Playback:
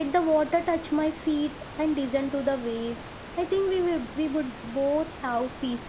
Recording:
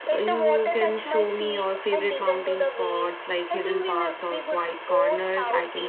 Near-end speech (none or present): present